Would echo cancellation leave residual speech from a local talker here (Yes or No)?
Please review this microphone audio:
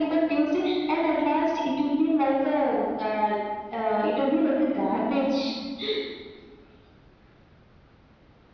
No